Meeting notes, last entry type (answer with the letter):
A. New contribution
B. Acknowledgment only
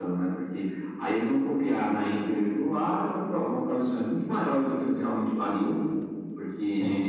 B